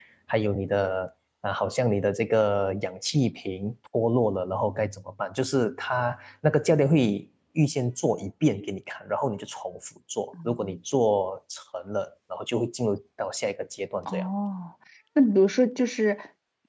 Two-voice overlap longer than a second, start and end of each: none

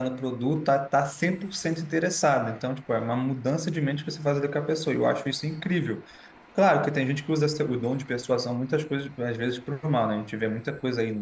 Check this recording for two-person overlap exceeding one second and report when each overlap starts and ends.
none

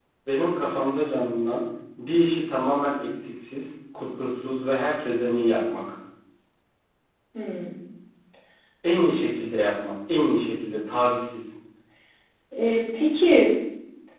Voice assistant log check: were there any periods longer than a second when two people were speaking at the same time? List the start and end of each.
none

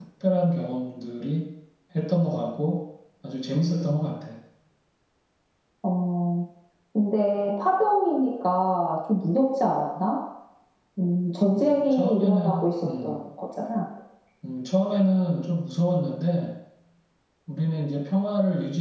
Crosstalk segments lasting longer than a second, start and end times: 11.5-13.2

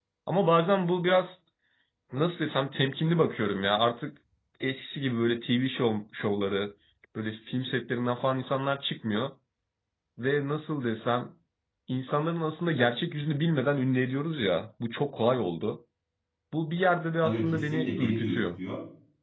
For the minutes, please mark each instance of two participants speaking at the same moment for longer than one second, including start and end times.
17.2-18.6

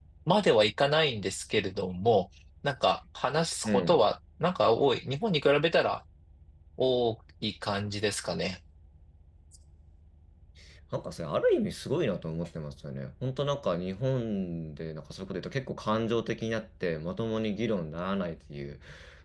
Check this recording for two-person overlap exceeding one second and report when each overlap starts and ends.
none

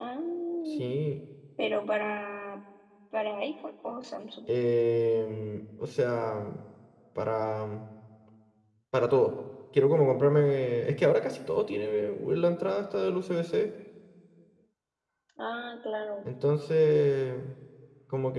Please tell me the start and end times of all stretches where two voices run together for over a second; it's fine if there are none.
none

